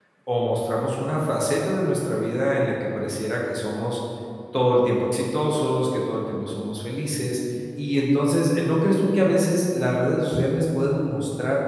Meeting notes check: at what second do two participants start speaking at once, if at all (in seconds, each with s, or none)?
none